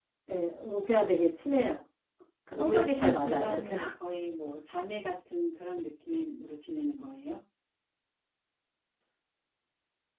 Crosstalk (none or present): present